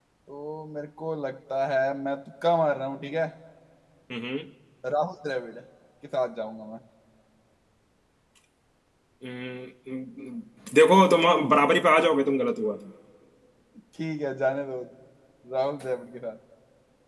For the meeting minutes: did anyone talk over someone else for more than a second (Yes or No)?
No